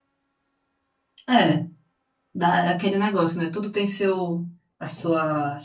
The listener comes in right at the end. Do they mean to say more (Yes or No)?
No